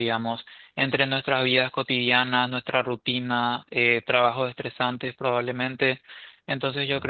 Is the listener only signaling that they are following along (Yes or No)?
Yes